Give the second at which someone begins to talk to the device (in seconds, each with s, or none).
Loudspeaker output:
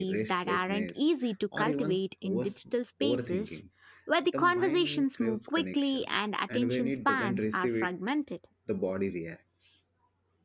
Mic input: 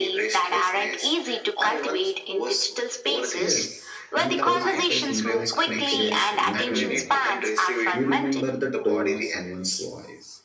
3.4 s